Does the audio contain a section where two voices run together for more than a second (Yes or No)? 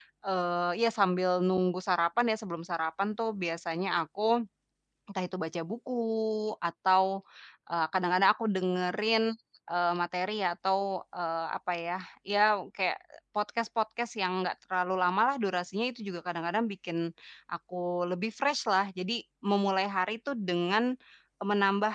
No